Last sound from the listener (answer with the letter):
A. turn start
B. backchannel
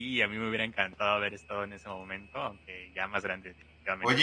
A